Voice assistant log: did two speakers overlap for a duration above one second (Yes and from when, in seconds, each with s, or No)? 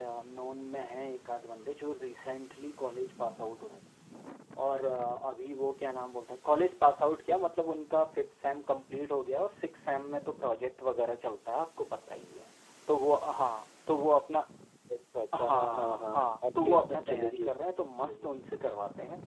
Yes, from 15.3 s